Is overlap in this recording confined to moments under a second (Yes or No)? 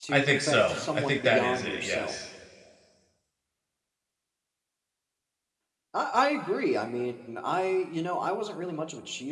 No